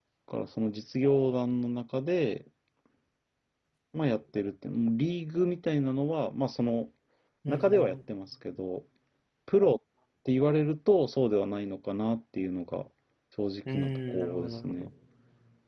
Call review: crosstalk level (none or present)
present